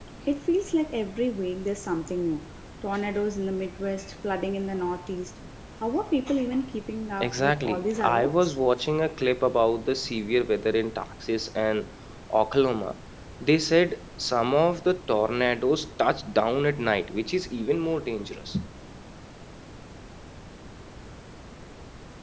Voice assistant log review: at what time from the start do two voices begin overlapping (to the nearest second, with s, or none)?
7 s